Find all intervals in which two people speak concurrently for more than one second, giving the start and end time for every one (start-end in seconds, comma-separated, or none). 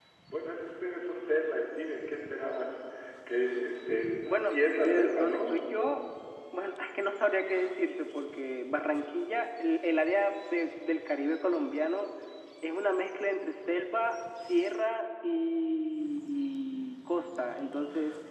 4.2-5.6